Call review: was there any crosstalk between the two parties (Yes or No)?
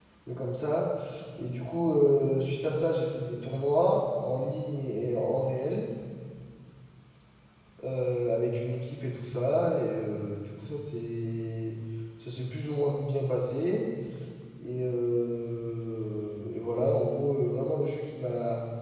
No